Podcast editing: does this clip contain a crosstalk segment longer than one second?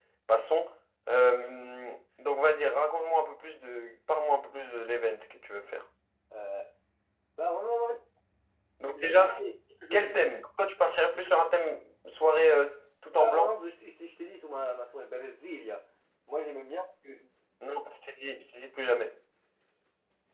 No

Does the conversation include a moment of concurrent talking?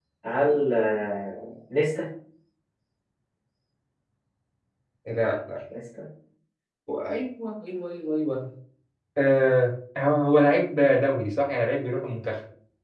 No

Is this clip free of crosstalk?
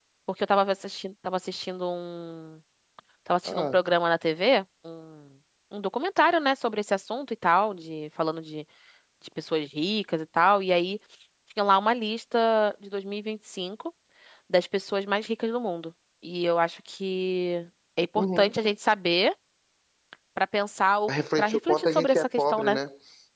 No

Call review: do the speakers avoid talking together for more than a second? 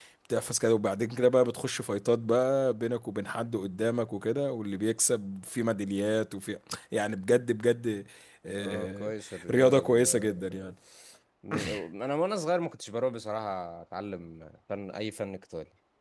No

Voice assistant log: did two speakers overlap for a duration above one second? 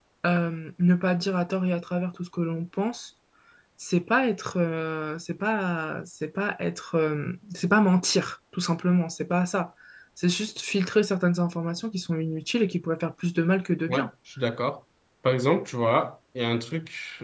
No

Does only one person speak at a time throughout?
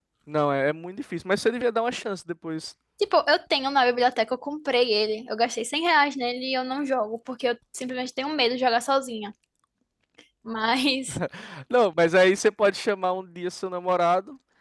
Yes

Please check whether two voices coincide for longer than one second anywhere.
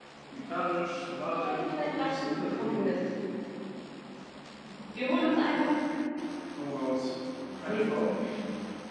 Yes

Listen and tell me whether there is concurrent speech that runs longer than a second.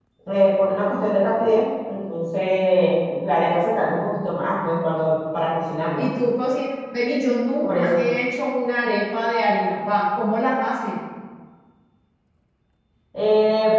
No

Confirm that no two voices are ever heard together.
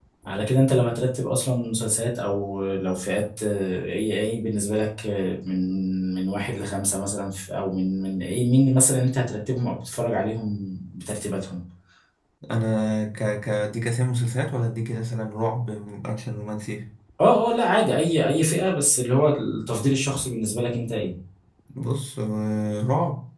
Yes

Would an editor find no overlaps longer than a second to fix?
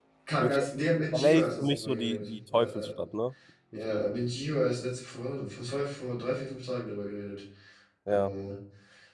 No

